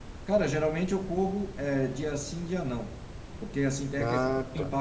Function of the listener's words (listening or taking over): listening